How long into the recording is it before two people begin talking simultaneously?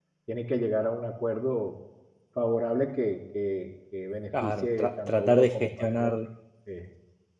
4.3 s

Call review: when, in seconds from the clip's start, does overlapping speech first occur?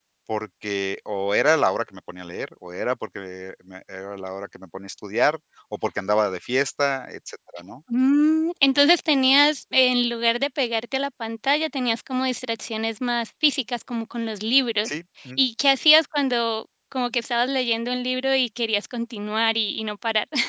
none

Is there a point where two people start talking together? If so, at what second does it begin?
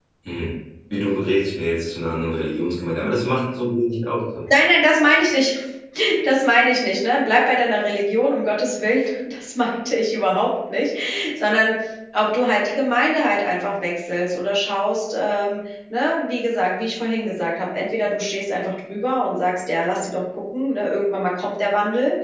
none

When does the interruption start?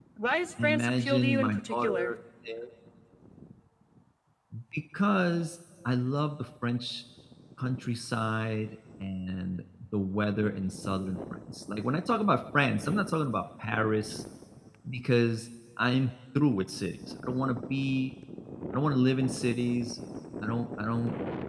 0.6 s

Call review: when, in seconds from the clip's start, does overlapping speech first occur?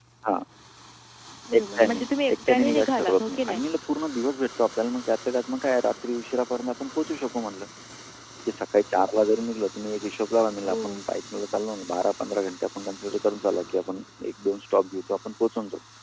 1.6 s

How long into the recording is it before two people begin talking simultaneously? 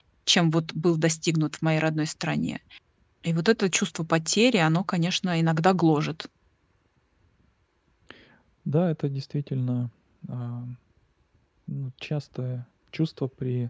none

